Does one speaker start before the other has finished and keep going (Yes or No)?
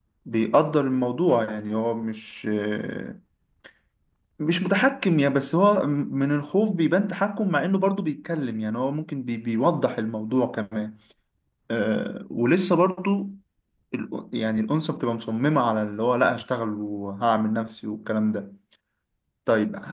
No